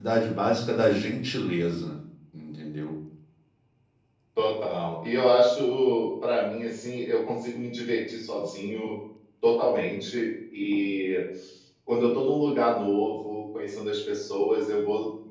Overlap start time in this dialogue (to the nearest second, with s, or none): none